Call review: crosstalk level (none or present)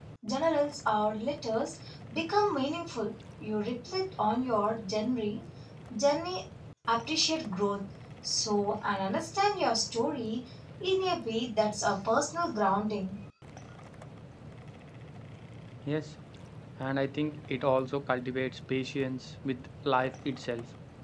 none